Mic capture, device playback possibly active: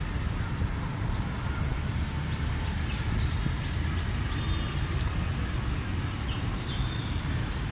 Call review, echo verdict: none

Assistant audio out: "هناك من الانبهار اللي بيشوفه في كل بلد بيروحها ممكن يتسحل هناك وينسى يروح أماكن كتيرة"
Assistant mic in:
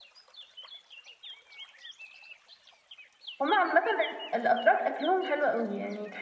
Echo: none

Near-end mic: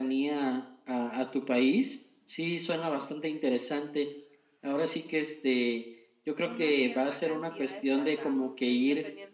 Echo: present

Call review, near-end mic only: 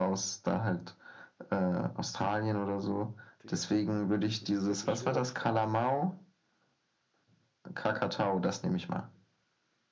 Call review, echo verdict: present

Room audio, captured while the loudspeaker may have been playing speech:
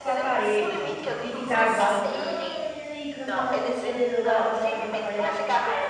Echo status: present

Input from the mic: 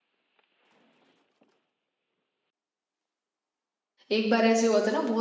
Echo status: none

